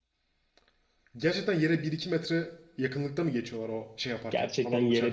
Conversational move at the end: taking over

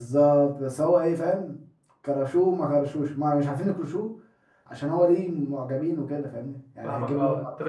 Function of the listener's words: taking over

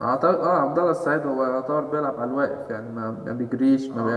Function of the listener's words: taking over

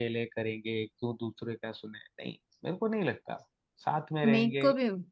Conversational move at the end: taking over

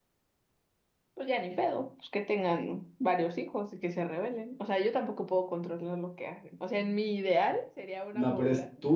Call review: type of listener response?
taking over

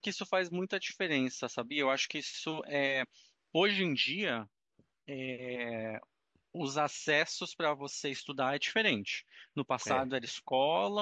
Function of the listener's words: listening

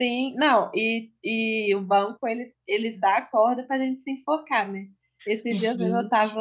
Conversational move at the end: listening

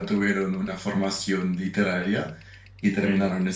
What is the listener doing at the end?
listening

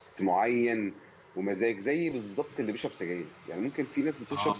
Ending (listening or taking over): listening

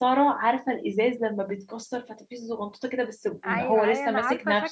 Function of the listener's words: taking over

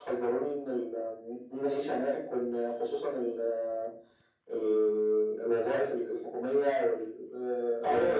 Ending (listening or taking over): taking over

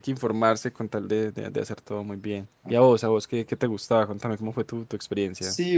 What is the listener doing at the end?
taking over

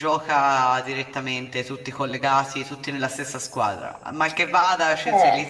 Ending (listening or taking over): listening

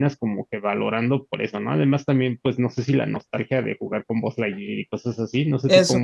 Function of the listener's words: taking over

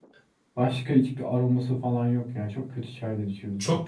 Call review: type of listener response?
taking over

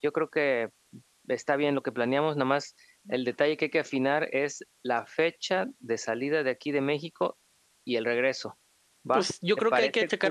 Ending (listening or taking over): taking over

